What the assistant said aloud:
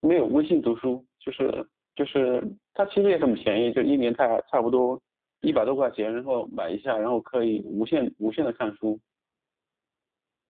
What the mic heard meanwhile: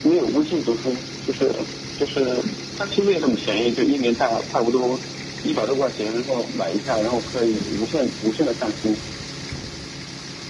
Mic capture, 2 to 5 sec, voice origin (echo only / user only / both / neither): echo only